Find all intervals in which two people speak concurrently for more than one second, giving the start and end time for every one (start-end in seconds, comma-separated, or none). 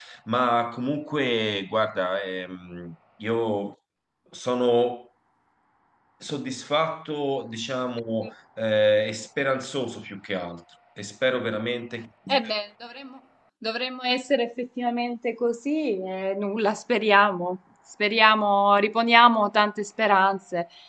none